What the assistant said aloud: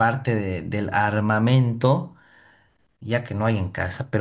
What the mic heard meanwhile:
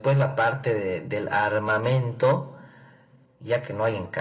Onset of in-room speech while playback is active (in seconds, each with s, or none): none